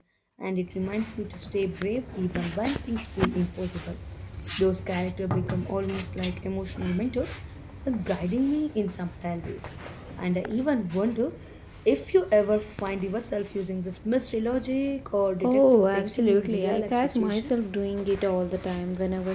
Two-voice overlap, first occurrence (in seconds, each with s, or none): 15.4 s